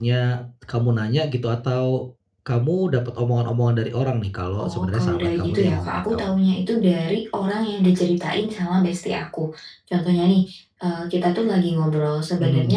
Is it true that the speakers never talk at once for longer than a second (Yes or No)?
No